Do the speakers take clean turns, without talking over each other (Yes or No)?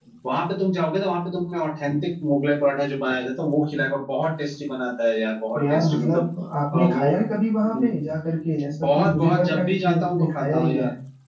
No